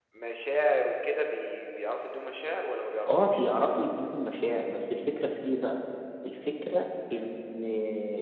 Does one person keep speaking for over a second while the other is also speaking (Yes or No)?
No